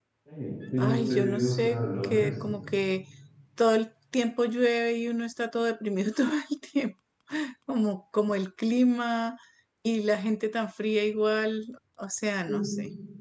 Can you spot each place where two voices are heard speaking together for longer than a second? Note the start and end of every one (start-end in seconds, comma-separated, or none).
0.8-2.3